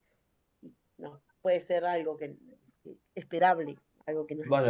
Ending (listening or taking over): taking over